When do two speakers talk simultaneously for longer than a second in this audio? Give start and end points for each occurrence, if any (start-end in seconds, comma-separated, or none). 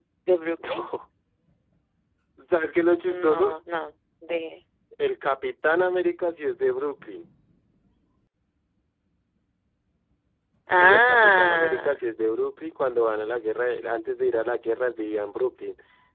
10.8-12.0